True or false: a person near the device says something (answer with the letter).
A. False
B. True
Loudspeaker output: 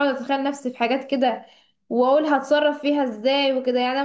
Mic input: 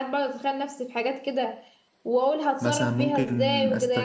B